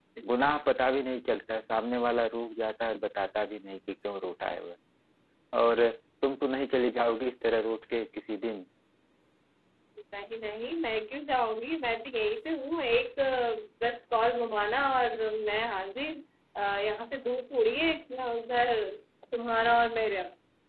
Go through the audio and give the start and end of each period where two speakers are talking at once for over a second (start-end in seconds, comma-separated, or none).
none